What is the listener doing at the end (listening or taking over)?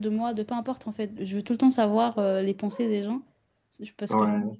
listening